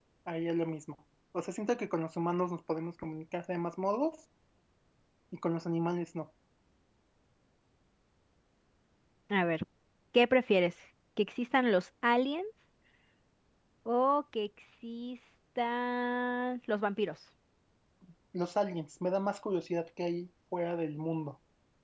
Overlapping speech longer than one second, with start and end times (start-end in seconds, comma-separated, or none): none